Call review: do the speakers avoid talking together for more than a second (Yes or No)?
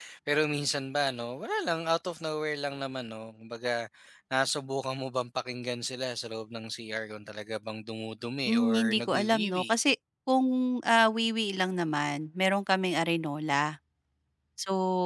No